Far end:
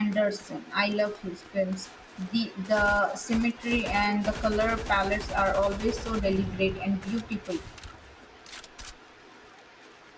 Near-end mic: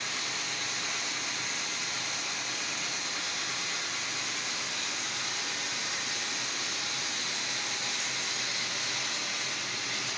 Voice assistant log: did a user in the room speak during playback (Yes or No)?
No